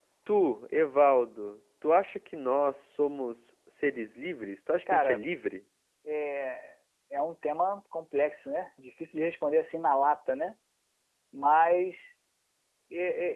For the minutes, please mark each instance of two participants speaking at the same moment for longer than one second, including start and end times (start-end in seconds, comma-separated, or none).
none